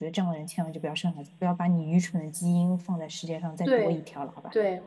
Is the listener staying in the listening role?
No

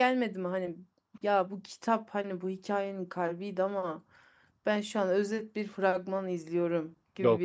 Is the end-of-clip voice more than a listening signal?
Yes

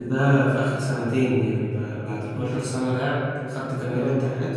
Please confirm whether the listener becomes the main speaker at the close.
No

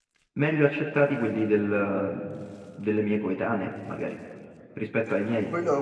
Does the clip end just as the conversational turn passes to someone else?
Yes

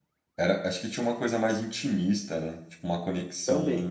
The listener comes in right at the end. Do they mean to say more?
No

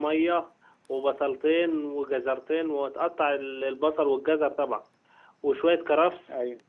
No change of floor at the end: Yes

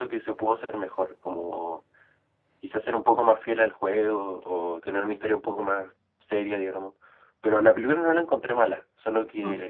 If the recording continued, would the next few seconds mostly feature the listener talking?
No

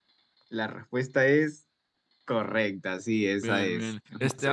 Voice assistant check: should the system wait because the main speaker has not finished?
No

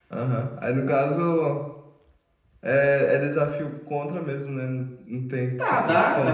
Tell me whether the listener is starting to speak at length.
Yes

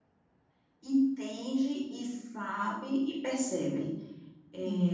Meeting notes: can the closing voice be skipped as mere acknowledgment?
No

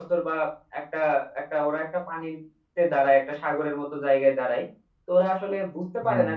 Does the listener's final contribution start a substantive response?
No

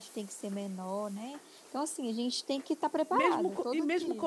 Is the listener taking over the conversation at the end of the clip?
Yes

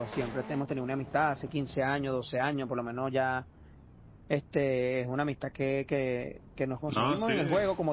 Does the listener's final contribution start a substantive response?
No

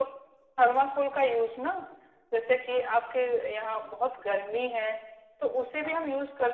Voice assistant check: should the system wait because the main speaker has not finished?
Yes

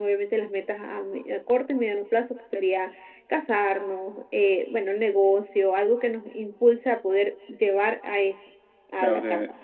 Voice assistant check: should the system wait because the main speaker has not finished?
No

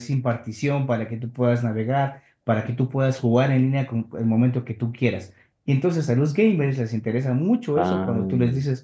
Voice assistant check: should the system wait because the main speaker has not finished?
Yes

